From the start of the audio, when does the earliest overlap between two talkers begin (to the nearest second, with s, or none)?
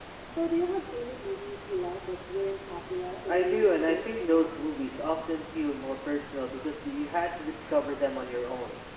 3 s